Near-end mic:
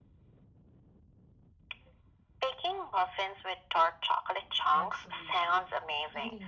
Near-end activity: present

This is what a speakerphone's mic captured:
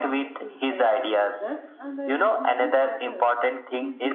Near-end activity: present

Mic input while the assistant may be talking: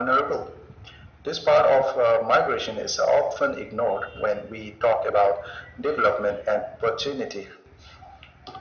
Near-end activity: none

